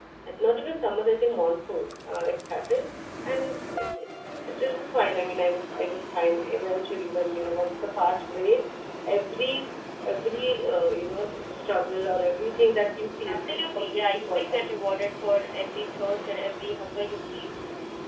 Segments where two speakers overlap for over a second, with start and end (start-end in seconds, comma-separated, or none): 13.3-14.6